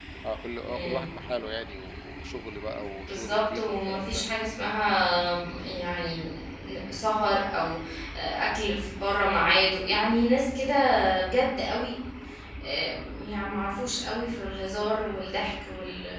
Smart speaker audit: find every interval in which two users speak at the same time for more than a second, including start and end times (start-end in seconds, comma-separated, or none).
3.0-4.2